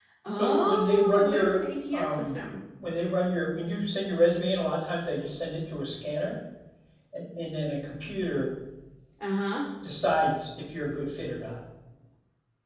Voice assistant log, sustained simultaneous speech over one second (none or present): present